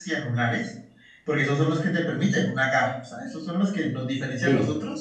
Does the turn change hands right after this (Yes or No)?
No